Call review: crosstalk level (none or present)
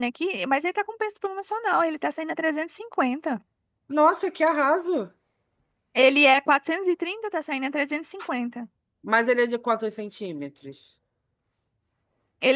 none